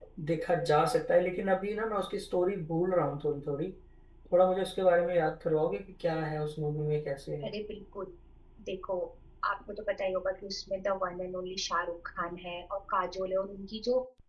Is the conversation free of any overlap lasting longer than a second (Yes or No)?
Yes